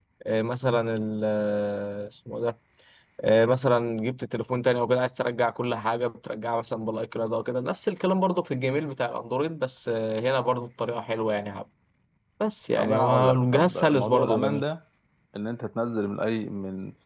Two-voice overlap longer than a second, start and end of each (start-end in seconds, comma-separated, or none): 12.8-14.6